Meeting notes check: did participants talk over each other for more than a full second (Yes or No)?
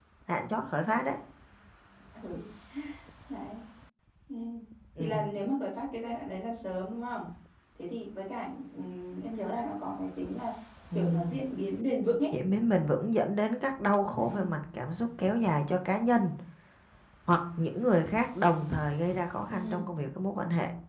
No